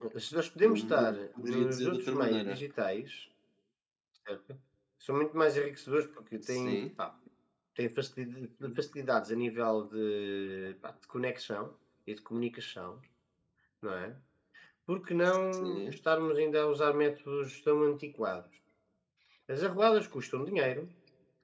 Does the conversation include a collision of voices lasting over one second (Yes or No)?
Yes